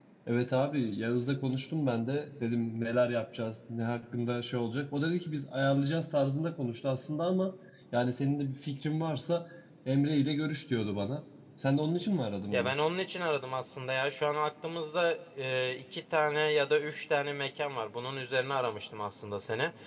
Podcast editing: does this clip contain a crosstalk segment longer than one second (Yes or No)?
No